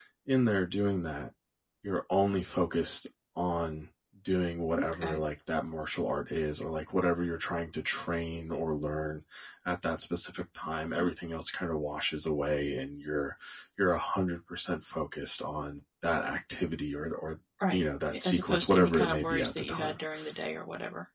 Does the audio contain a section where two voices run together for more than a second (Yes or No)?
Yes